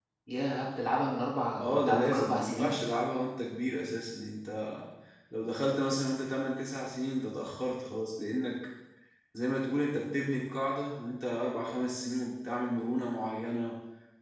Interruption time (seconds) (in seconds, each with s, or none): 1.6 s